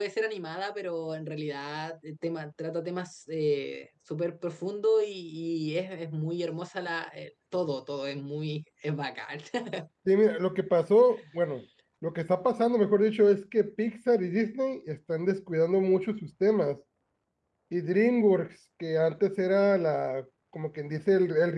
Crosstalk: none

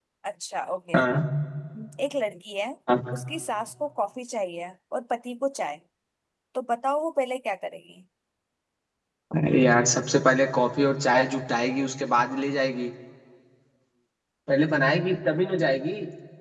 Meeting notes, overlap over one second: none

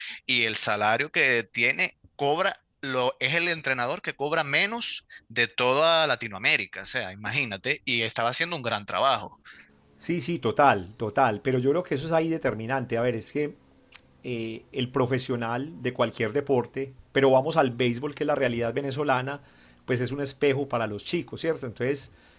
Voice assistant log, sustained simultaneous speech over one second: none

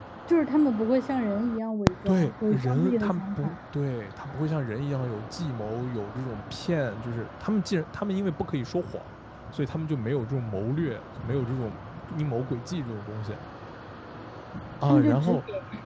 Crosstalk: present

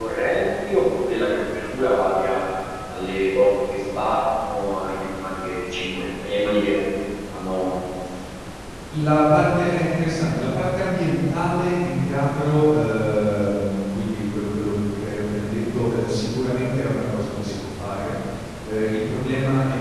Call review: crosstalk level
none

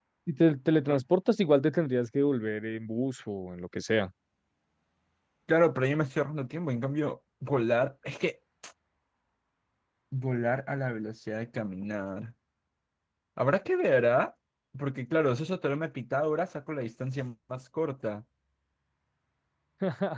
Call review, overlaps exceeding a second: none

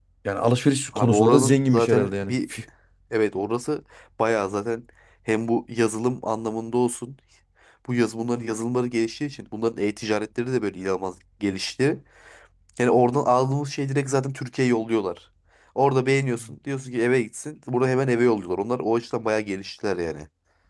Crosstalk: present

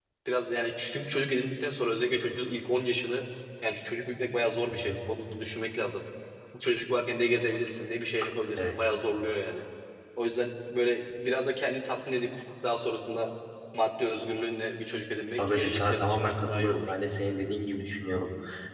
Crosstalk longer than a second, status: present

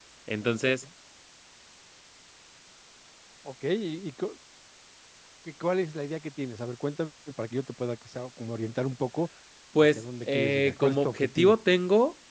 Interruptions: present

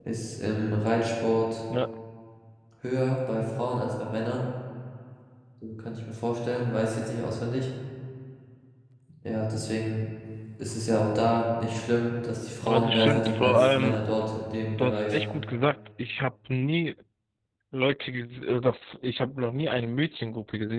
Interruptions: present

